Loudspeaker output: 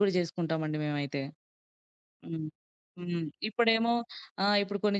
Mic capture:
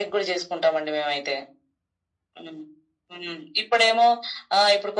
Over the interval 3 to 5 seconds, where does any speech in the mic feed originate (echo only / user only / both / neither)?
echo only